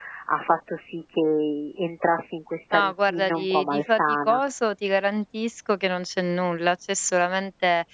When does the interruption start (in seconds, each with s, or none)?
2.7 s